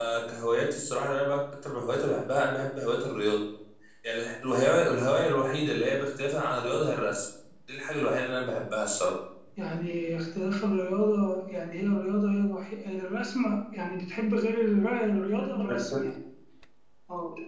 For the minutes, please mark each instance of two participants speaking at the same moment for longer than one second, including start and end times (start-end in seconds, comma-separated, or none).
none